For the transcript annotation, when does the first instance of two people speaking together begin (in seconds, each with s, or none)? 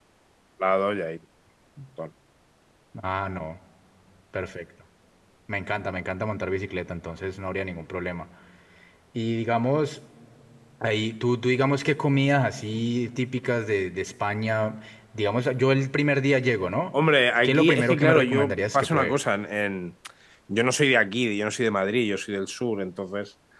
17.4 s